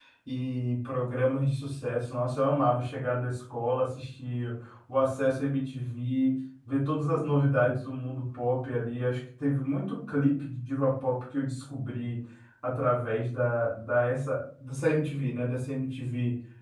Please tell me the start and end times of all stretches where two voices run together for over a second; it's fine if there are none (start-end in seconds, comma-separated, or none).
none